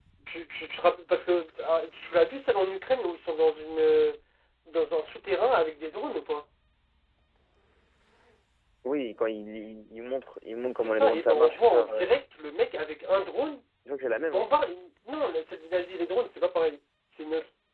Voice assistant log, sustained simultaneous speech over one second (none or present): present